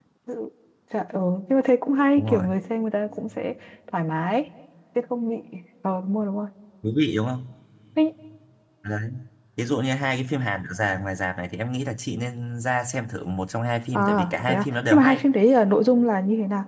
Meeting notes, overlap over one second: present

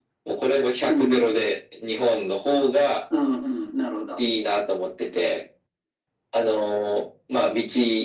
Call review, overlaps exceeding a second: none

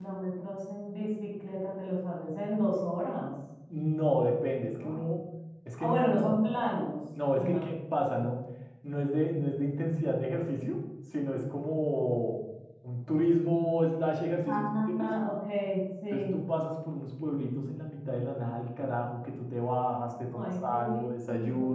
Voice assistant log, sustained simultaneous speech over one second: present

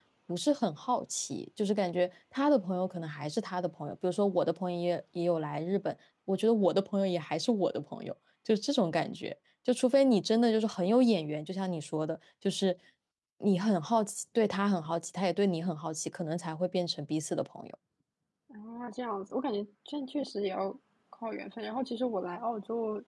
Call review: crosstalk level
none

